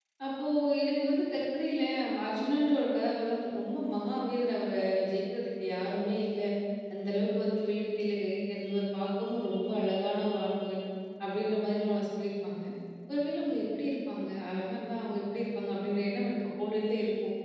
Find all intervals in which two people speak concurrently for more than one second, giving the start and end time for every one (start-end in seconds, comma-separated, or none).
none